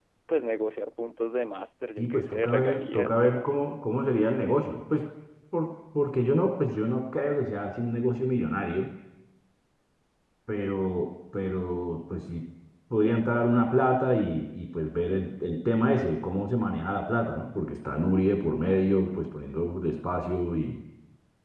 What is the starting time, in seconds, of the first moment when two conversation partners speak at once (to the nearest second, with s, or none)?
2 s